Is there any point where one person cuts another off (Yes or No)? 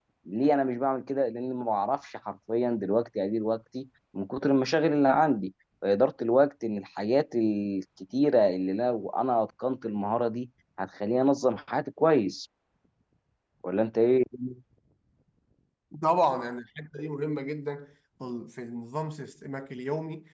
No